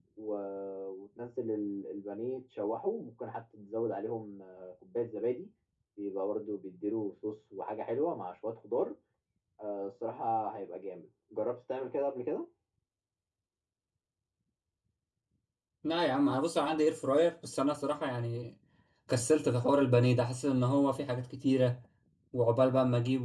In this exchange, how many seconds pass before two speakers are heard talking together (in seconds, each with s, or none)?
none